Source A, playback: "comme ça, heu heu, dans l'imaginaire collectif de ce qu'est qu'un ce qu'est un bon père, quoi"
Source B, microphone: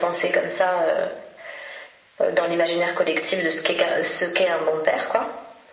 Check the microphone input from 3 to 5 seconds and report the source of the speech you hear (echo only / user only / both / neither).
echo only